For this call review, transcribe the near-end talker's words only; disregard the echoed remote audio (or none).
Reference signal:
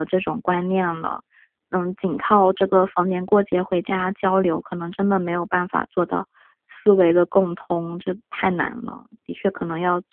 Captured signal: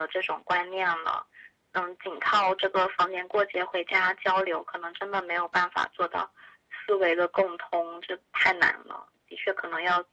none